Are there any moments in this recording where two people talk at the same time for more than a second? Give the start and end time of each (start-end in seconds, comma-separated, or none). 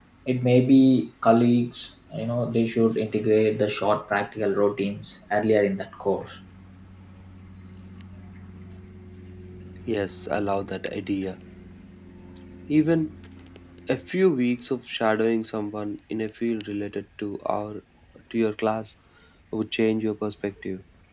none